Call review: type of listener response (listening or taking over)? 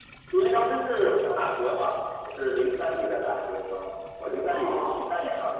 listening